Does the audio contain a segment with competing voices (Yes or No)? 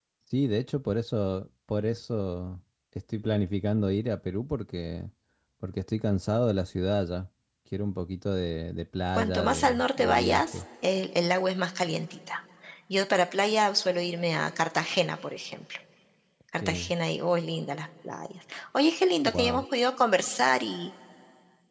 Yes